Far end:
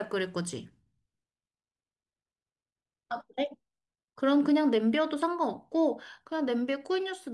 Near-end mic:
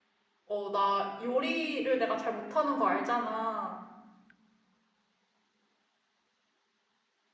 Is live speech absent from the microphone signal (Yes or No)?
No